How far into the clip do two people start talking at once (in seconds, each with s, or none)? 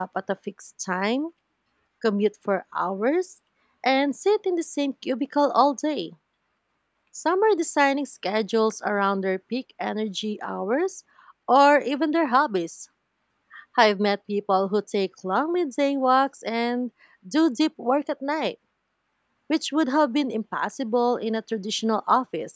none